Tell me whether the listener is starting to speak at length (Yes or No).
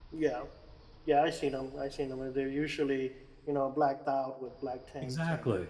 Yes